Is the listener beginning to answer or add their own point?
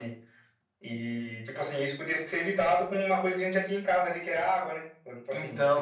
No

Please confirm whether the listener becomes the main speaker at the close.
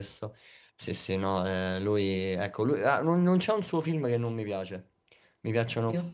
No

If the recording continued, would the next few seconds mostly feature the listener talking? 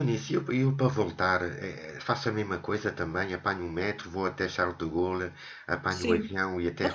Yes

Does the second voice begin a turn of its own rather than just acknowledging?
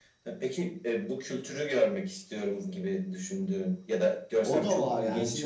Yes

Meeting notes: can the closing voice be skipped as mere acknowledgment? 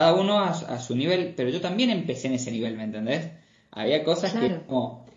Yes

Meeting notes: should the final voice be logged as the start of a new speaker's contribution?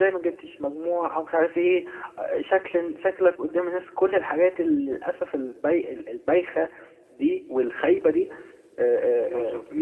No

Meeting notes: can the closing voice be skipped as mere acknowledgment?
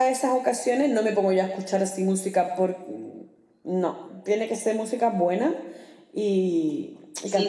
No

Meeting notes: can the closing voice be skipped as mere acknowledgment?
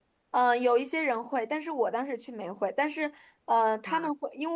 Yes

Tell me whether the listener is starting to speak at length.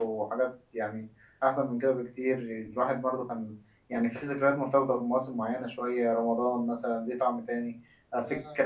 No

